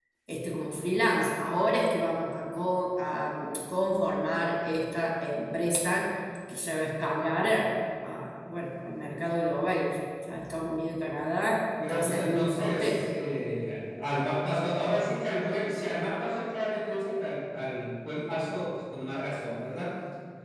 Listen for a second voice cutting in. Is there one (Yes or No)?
Yes